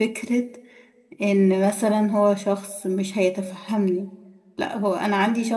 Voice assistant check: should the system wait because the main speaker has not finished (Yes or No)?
Yes